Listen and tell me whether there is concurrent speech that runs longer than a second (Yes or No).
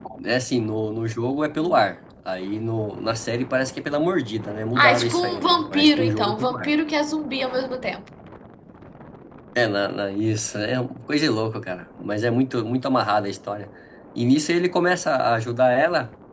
Yes